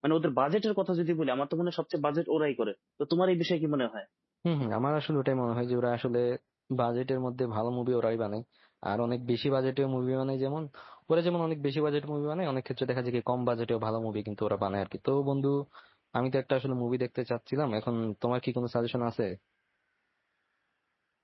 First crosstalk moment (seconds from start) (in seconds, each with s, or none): none